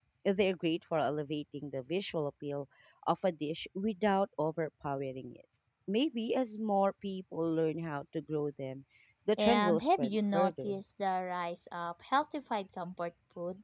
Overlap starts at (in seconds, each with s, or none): 9.4 s